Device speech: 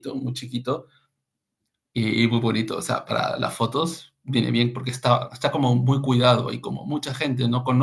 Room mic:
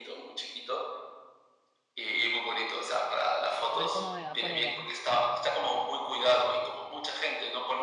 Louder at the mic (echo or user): echo